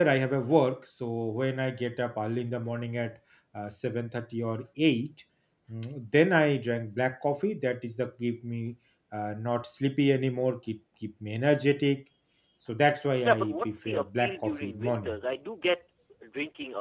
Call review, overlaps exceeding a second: present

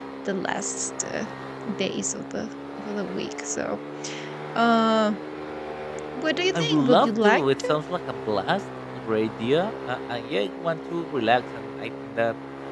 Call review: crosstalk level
present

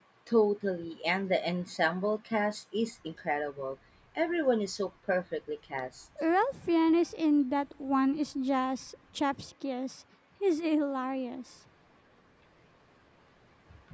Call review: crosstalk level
none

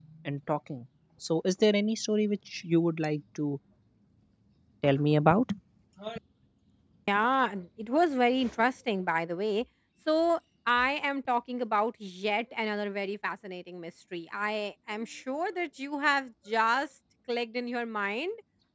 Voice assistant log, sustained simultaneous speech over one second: none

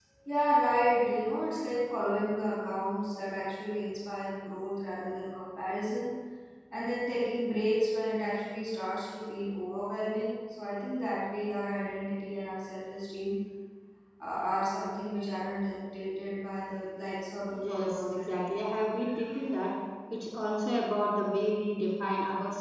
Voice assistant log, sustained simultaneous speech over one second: present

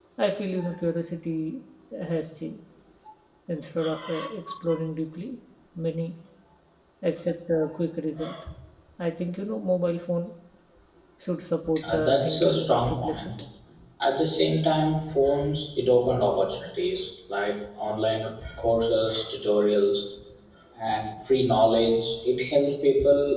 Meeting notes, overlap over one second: present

